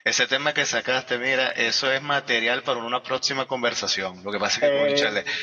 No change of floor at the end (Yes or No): Yes